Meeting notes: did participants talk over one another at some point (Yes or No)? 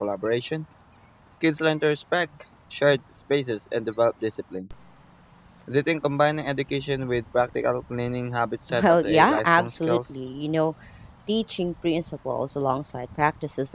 Yes